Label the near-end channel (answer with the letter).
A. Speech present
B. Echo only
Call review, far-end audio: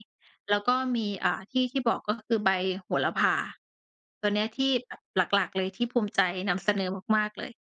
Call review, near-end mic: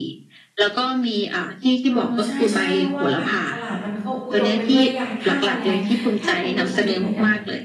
A